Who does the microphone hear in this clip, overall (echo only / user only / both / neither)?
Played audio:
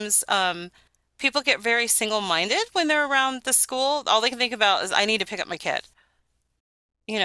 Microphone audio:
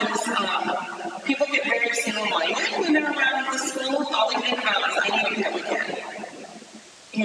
echo only